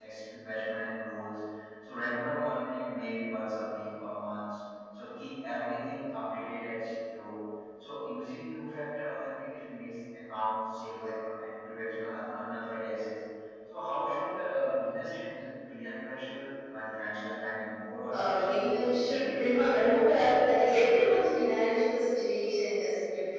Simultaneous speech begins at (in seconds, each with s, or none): 18.1 s